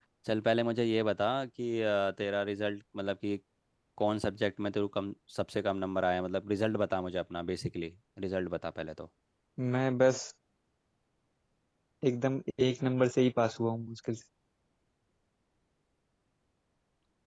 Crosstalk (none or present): none